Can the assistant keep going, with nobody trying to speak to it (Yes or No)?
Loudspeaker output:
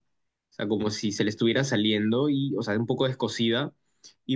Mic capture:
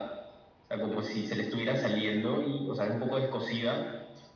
Yes